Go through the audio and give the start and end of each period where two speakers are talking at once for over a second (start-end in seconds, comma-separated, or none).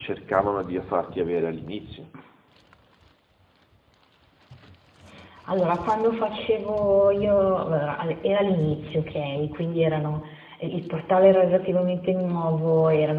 none